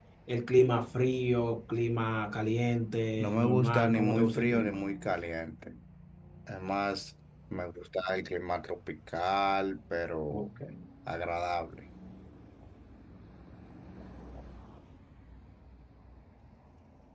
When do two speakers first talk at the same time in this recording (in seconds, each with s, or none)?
3.2 s